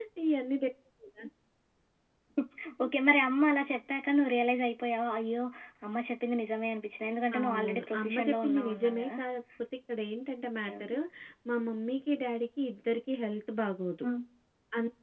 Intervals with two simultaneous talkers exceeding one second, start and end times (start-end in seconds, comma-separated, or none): 7.4-9.1